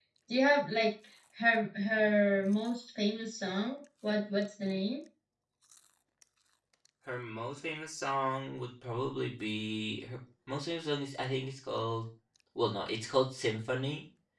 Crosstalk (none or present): none